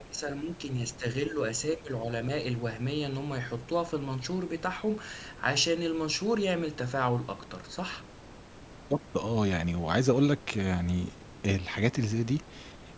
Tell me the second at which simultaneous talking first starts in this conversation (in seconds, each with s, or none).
none